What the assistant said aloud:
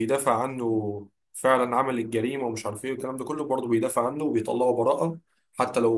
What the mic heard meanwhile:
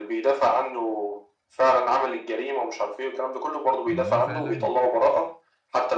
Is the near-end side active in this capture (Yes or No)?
Yes